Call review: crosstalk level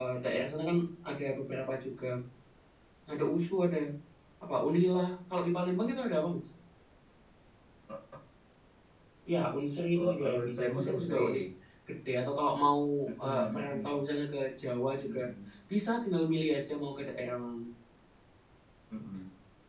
present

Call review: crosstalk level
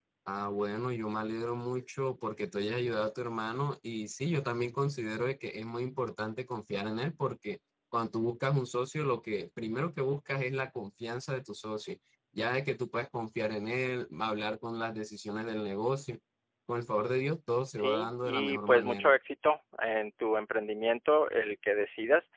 present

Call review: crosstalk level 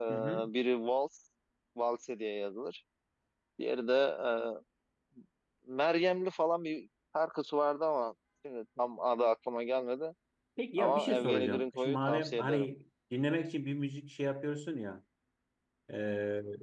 present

